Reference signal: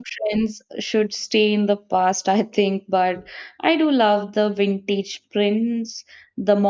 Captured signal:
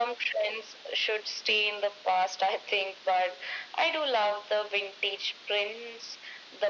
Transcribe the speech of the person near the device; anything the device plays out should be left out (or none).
none